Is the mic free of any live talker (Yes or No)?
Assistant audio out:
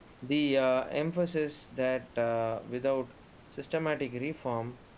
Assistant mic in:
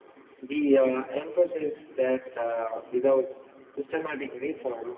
Yes